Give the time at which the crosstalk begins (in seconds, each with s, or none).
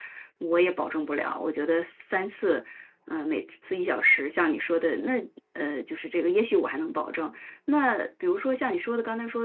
none